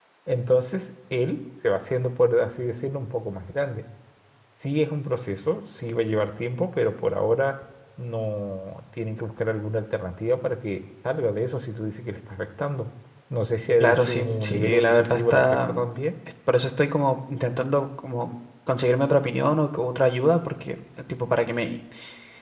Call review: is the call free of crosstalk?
No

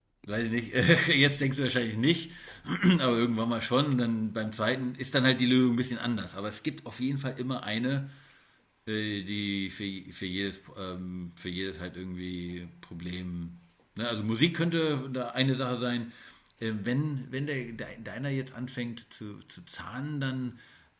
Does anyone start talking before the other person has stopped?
No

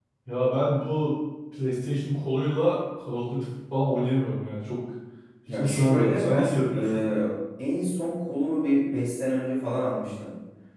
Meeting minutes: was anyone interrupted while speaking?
Yes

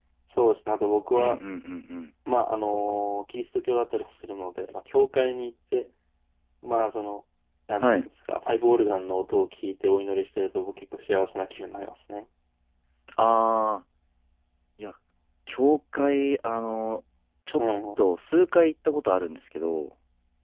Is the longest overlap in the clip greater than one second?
No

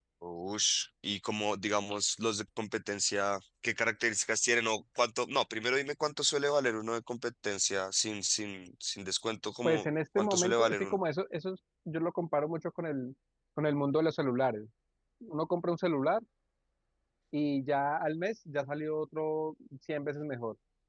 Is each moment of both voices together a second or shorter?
No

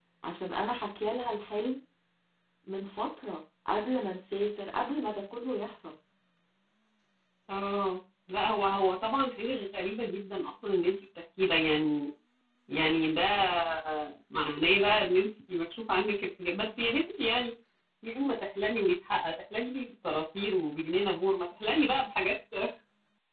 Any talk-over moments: No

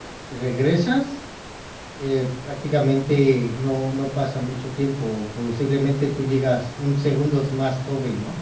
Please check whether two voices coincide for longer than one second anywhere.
No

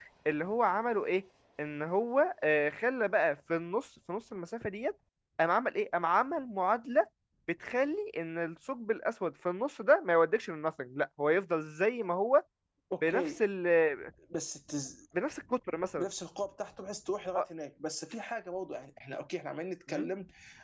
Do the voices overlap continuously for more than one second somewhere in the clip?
No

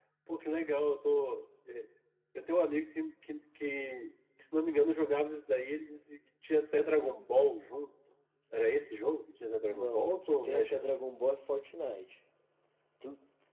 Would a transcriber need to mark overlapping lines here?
Yes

